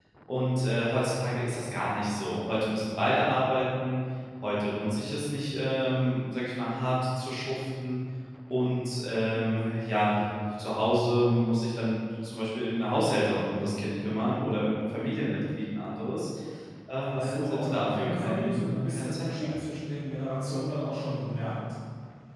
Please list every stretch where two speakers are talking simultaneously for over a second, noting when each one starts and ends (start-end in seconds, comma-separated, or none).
17.1-19.5